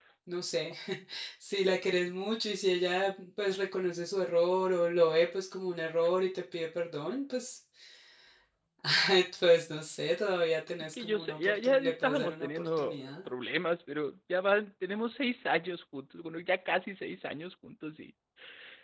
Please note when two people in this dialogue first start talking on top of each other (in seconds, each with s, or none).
10.8 s